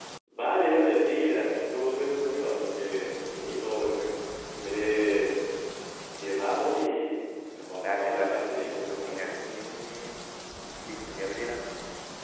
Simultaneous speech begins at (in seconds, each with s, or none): 7.8 s